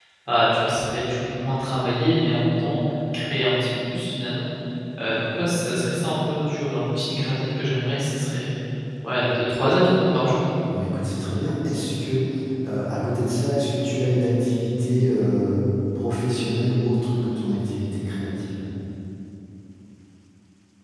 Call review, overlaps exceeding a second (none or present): none